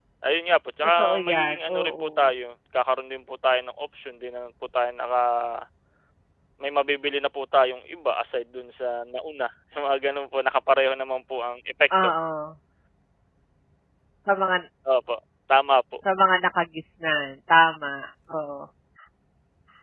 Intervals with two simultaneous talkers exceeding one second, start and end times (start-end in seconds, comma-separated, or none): 1.0-2.3